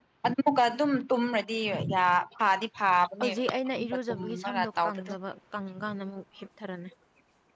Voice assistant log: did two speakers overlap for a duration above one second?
Yes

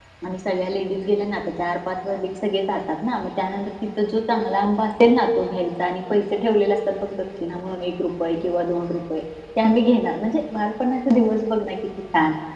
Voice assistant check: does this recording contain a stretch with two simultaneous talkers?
No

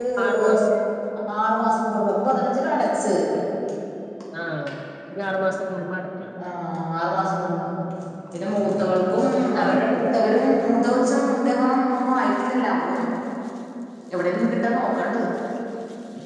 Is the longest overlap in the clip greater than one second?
No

